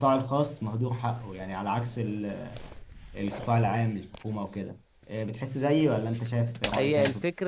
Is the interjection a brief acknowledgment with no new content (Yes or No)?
No